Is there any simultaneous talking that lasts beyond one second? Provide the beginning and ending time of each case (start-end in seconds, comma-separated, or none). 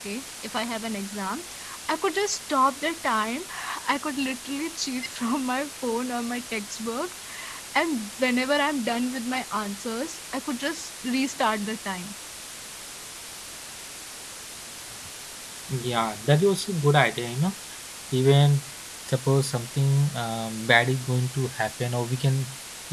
none